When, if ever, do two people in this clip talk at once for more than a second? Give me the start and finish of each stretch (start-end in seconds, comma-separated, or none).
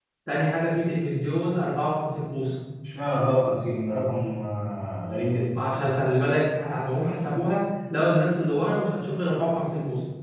none